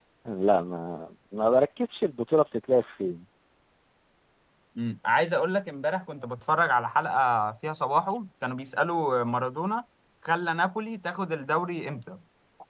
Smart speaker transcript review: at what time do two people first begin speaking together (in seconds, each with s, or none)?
none